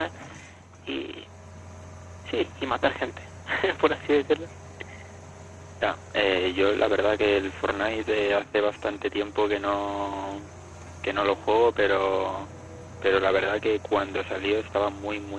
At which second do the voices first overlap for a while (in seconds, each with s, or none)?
none